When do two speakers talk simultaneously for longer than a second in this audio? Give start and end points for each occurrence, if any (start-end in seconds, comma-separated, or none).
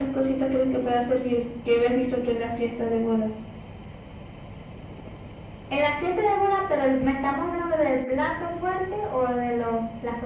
none